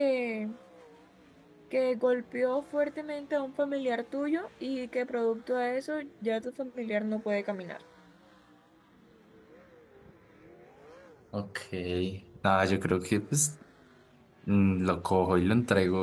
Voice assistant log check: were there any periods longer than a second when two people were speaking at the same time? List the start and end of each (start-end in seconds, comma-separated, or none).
none